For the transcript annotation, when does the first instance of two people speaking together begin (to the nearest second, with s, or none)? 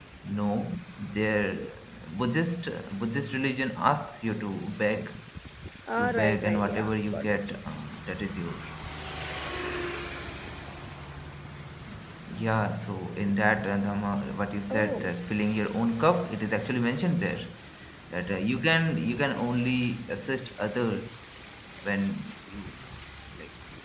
6 s